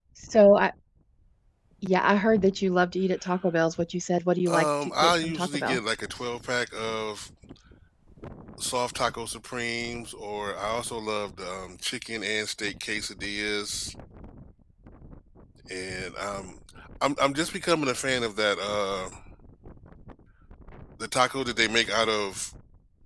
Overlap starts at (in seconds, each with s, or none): 4.5 s